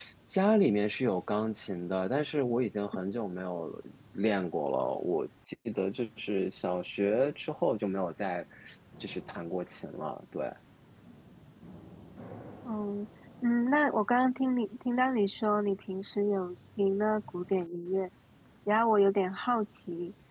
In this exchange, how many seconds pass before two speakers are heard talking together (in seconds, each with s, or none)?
none